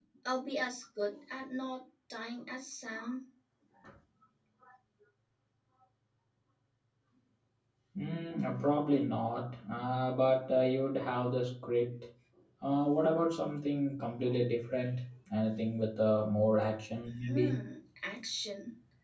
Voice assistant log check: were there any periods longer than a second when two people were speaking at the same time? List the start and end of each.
none

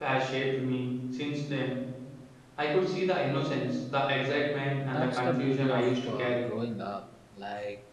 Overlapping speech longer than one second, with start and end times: 4.8-6.5

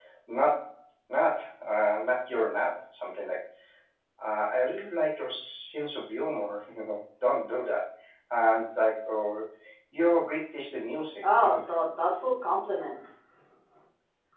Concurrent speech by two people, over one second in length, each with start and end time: none

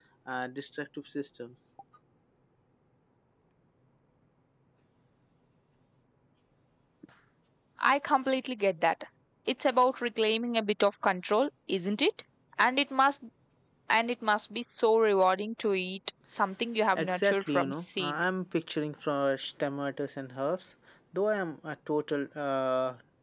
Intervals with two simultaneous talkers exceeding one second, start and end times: 16.9-18.2

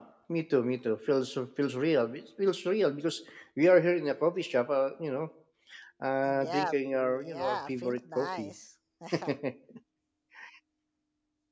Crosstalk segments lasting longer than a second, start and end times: 6.4-8.5

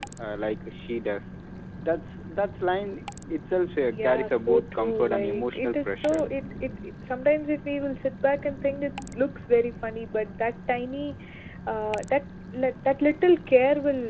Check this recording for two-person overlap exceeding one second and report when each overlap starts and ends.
3.9-6.2

